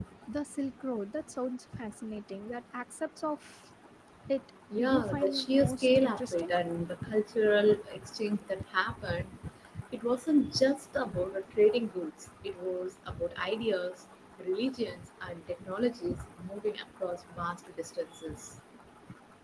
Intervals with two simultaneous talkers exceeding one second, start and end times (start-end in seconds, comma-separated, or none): 4.7-6.5